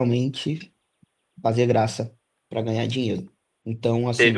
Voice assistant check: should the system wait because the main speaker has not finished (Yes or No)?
No